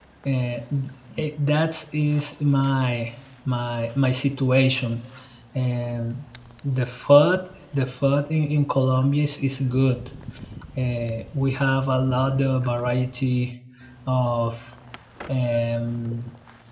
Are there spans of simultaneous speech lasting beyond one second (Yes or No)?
No